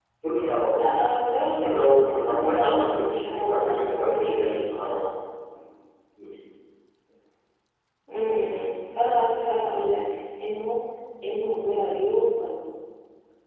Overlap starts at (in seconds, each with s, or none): 1.6 s